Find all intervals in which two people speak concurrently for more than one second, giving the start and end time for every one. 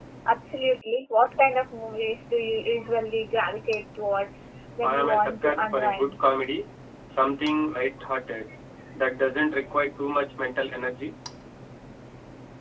4.8-6.1

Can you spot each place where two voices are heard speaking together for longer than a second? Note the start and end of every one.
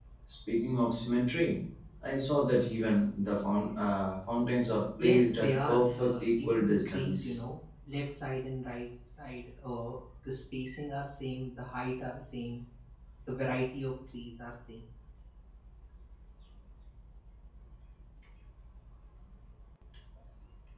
5.0-7.4

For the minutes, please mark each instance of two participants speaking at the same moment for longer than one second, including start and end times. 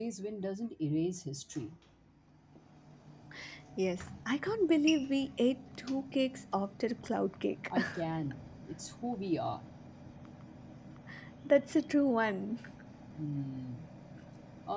none

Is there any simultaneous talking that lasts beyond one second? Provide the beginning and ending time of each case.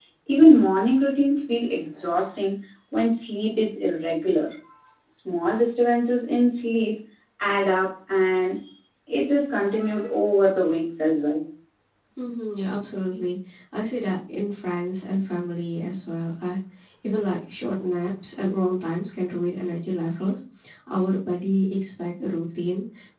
none

